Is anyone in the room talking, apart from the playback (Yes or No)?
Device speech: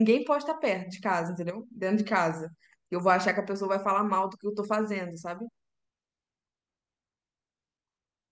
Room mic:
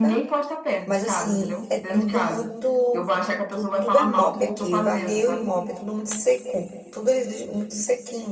Yes